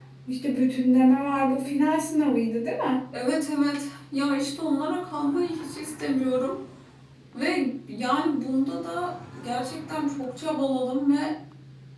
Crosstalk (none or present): none